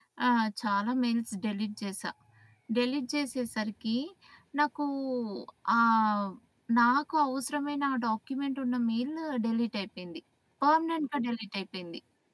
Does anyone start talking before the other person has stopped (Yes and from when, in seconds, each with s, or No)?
No